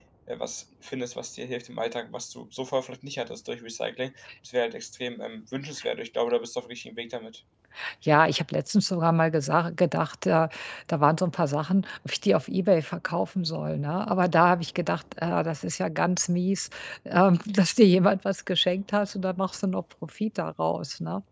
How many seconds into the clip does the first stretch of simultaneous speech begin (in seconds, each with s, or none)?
none